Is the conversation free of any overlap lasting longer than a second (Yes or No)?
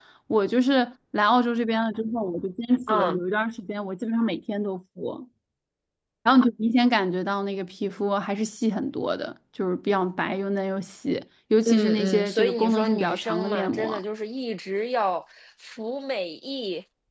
No